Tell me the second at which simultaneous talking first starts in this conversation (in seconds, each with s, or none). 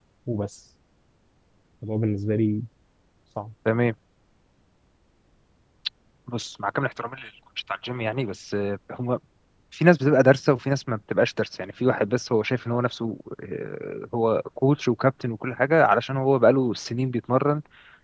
none